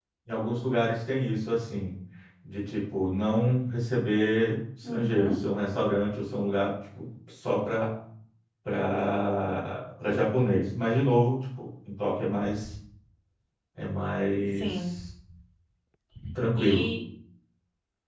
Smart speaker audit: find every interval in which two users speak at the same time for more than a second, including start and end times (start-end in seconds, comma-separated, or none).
none